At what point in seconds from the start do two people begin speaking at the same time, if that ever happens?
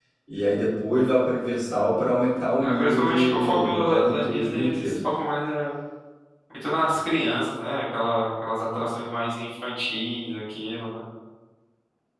3 s

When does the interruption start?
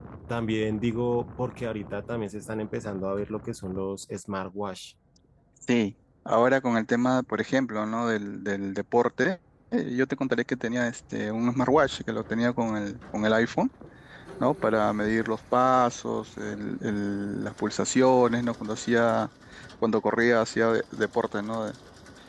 none

